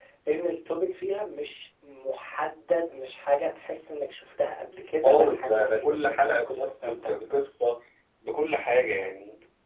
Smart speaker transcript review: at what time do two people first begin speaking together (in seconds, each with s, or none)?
5.0 s